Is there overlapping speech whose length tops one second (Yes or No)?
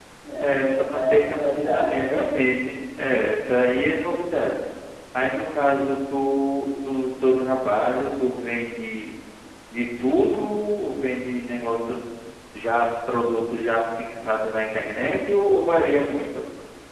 Yes